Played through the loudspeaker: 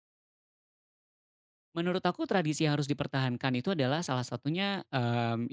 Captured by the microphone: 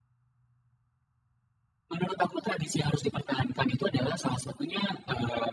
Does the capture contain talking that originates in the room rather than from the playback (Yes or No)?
No